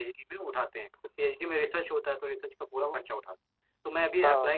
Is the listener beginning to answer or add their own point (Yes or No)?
No